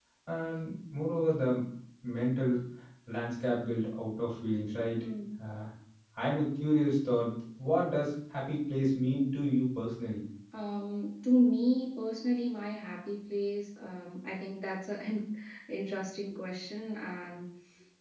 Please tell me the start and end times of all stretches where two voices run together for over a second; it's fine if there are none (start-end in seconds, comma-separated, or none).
none